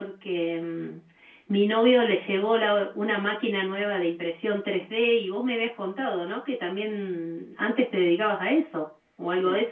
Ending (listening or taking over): taking over